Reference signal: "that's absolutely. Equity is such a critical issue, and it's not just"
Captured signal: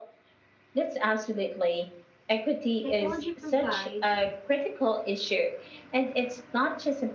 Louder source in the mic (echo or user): echo